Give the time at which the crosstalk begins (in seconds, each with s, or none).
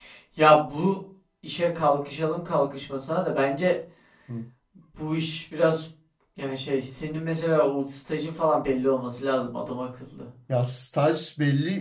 none